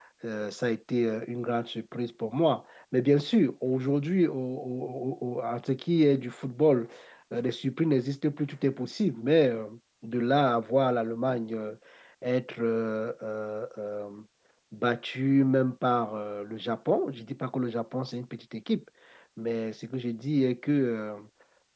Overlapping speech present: No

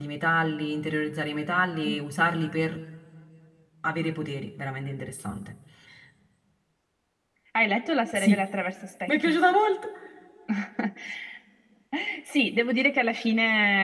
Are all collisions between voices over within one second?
Yes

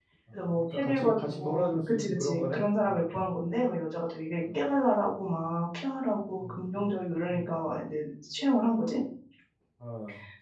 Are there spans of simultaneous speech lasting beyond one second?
Yes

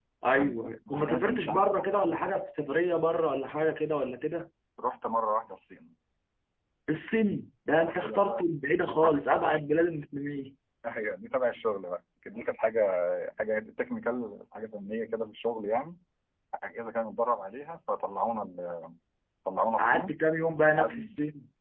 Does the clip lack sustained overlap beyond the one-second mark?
No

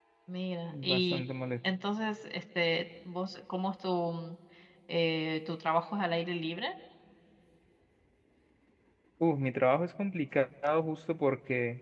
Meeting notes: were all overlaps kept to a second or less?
Yes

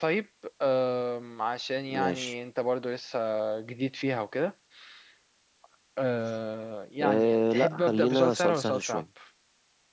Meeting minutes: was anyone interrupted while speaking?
Yes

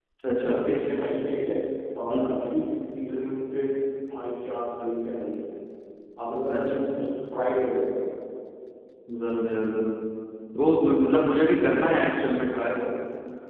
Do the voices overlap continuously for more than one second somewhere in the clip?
No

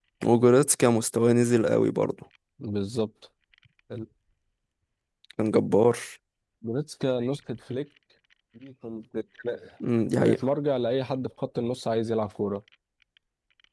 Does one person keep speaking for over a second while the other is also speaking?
No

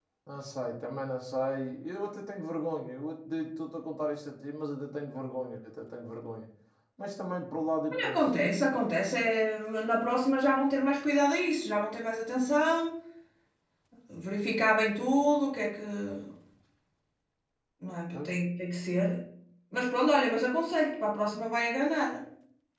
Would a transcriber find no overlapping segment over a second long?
Yes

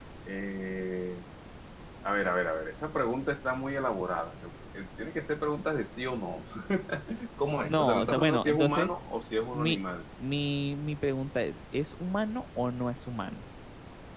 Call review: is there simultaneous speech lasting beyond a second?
Yes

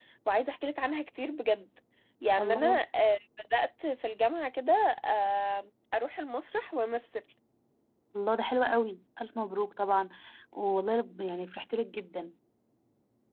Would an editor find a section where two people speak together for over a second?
No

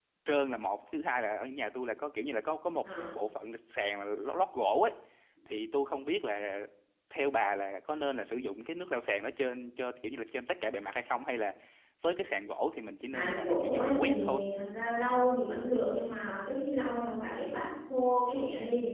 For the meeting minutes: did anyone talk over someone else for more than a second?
Yes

